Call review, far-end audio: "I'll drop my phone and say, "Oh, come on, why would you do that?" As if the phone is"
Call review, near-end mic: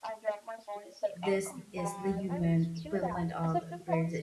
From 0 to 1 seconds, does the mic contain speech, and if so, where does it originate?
echo only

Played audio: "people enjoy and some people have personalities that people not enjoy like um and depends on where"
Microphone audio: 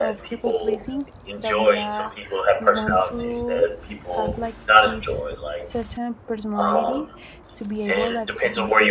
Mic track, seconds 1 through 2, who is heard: both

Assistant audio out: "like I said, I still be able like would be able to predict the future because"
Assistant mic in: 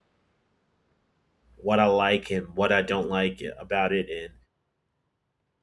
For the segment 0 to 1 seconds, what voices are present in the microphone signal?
neither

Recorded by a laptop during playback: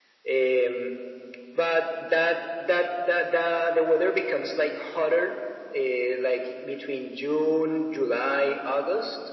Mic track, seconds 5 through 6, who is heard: echo only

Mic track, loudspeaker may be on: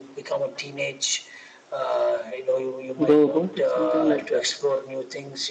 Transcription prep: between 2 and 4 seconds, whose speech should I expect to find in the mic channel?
both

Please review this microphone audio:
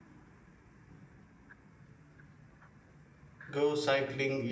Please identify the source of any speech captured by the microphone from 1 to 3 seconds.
neither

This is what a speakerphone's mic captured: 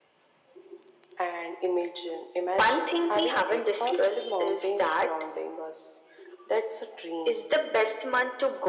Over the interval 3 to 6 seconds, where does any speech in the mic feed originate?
echo only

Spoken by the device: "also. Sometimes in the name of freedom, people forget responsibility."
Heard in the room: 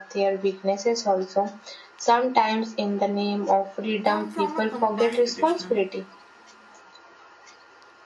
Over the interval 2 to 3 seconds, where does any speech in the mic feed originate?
echo only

